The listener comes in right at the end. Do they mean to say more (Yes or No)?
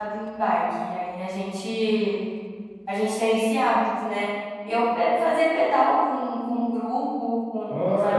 Yes